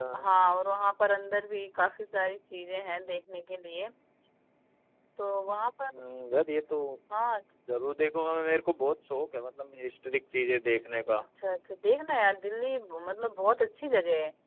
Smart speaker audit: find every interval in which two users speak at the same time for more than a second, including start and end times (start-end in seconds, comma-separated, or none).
none